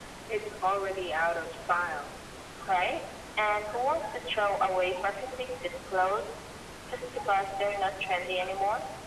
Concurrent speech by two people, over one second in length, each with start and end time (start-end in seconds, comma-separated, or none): none